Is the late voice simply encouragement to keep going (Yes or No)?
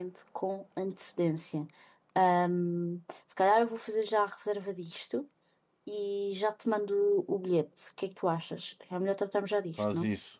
No